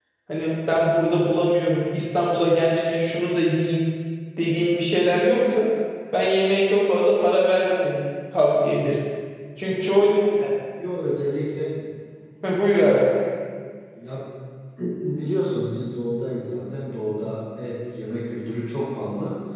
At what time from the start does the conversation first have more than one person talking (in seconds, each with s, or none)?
none